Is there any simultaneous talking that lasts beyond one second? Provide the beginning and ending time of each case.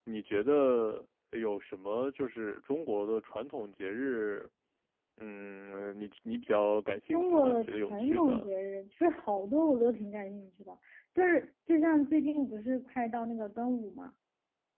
7.1-8.5

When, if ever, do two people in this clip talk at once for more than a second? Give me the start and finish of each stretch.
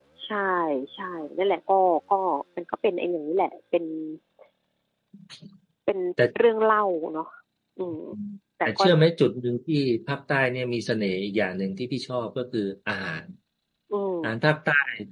none

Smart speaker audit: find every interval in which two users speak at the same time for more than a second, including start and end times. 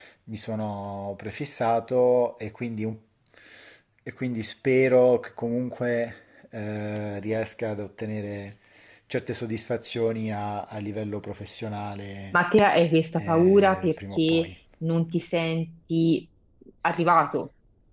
13.2-14.5

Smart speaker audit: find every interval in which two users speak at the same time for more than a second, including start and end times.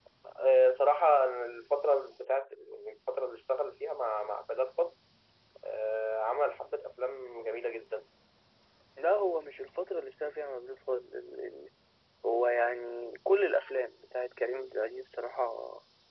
none

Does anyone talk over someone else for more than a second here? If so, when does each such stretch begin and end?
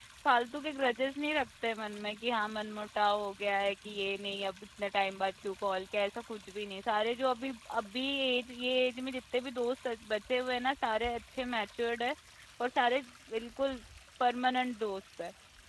none

